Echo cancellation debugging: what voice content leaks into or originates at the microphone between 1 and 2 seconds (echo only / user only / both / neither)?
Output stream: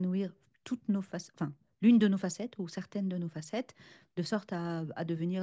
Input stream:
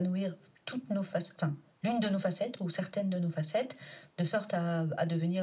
echo only